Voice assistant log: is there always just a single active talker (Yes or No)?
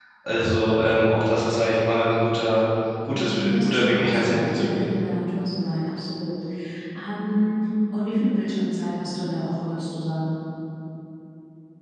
No